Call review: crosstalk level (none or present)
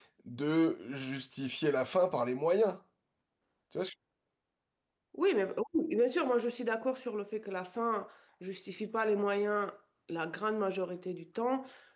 none